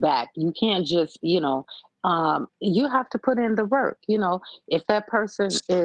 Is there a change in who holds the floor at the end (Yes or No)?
No